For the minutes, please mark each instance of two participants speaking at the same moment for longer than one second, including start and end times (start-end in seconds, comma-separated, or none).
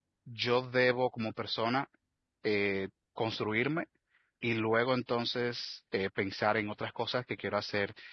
none